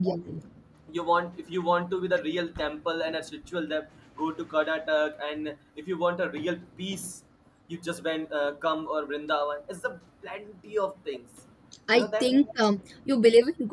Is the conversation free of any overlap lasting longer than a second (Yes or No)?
Yes